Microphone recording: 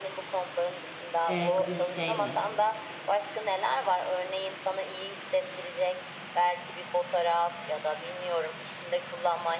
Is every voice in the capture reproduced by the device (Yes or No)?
No